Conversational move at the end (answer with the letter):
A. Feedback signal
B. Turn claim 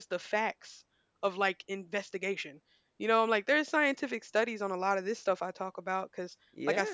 B